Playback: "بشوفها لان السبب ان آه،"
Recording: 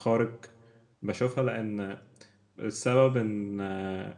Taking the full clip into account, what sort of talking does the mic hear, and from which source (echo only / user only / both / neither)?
echo only